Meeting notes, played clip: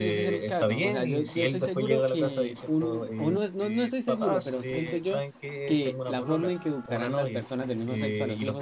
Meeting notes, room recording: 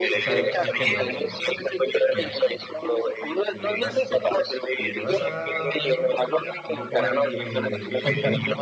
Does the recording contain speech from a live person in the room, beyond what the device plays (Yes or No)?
Yes